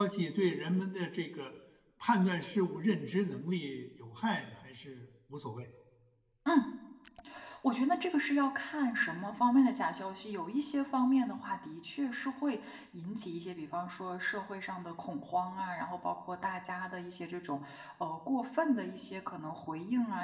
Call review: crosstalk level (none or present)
none